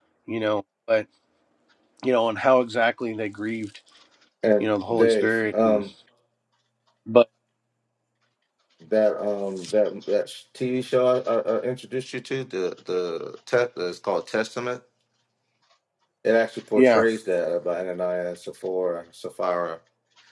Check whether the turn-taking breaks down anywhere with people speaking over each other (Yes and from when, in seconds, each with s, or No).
Yes, from 4.6 s